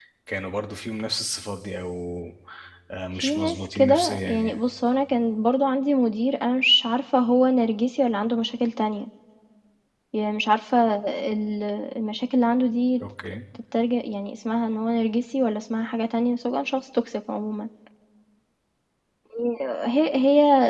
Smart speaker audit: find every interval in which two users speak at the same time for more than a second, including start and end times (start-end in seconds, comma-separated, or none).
3.1-4.6